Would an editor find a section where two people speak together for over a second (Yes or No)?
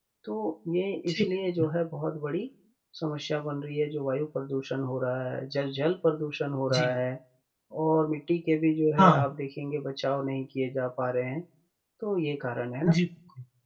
No